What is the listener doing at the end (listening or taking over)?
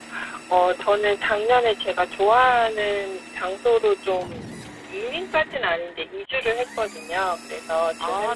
listening